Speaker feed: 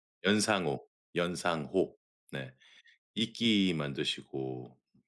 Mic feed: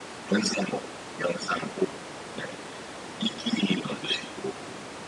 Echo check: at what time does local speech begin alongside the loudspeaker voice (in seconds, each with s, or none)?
none